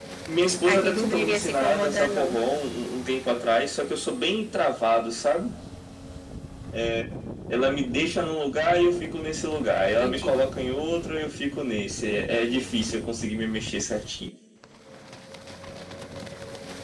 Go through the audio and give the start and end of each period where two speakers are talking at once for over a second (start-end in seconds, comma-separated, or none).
0.6-2.4